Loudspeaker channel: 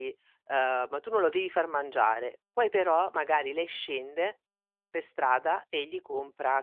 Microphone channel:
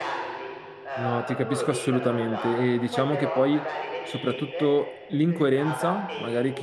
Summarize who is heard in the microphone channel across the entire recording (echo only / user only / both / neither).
both